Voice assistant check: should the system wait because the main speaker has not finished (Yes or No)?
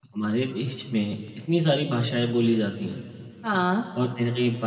Yes